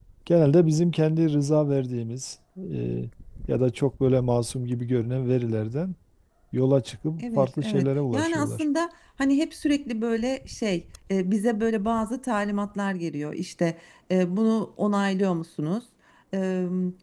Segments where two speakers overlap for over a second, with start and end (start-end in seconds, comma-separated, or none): 7.2-8.6